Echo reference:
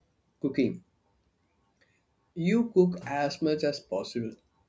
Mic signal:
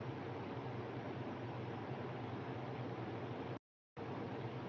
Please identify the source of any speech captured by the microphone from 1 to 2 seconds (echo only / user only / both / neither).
neither